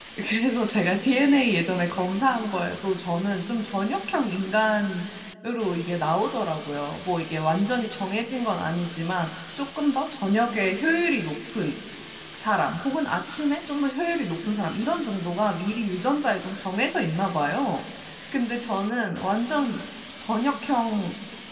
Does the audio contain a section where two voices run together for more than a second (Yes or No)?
No